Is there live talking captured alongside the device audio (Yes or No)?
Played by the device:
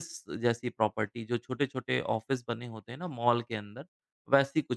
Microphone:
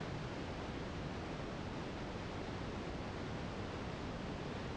No